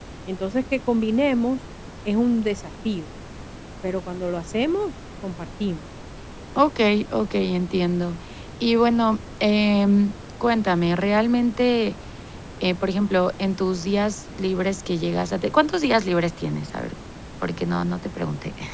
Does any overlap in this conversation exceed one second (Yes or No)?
No